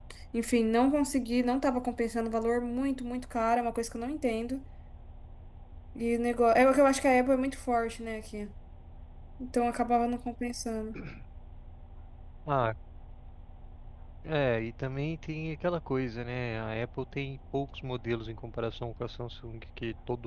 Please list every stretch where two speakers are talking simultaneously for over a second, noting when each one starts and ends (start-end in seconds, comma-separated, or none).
none